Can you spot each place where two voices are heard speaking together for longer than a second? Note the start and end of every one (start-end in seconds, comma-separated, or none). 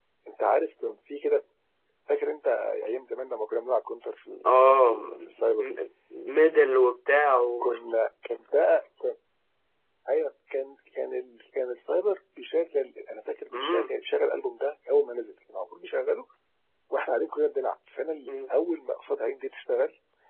4.5-5.7